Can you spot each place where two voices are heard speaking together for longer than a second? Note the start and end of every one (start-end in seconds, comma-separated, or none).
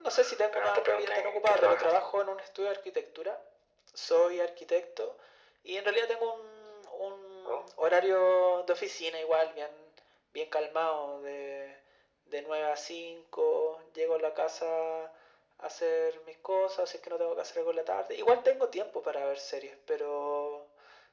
0.5-1.9